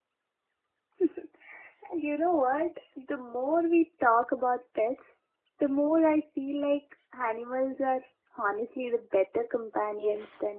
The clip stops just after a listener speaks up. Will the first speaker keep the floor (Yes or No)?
No